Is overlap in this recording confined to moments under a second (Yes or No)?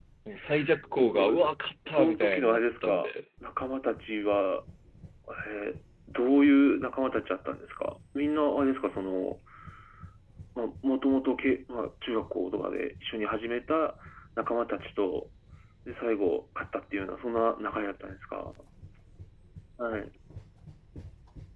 No